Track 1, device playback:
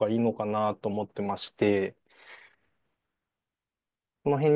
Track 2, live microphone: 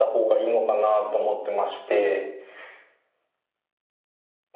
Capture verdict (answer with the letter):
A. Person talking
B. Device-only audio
B